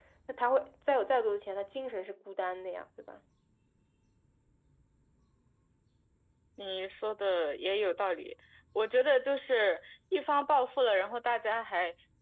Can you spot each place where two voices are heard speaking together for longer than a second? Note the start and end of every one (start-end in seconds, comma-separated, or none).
none